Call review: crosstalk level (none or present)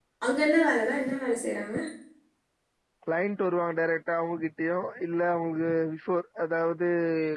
none